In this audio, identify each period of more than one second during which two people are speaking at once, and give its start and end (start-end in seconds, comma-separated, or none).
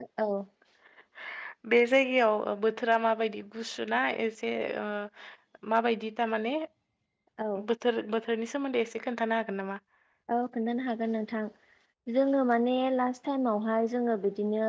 none